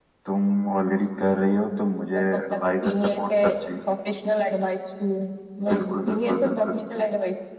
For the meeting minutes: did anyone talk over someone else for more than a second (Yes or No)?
Yes